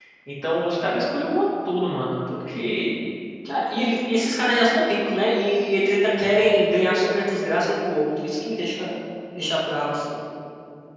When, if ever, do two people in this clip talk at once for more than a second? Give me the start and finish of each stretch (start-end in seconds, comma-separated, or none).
none